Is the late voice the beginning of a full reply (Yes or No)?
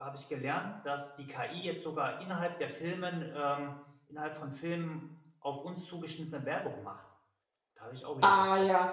Yes